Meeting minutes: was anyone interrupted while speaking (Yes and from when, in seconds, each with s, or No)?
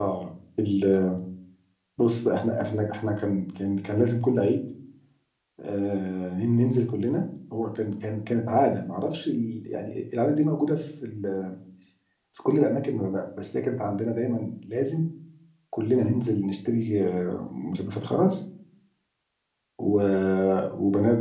No